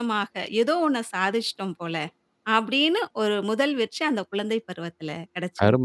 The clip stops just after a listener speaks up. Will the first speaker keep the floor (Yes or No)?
No